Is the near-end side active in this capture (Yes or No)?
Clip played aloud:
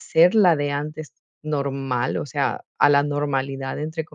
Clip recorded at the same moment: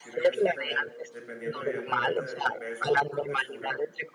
Yes